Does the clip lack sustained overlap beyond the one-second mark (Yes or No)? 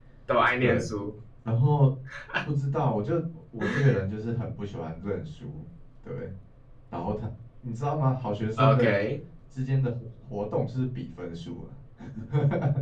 Yes